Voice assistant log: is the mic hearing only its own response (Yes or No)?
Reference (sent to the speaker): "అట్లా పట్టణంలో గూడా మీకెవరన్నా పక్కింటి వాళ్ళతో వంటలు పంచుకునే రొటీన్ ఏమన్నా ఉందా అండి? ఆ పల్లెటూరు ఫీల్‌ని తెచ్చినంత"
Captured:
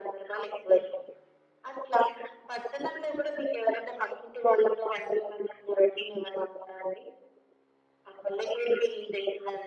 Yes